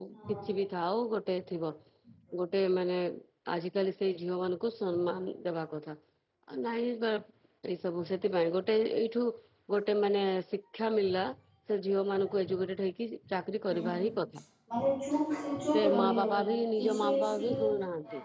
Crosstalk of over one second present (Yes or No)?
Yes